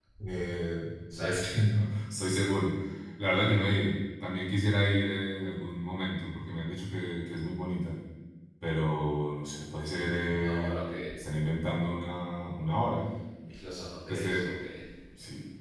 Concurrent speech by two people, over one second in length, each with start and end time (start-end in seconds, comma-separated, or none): none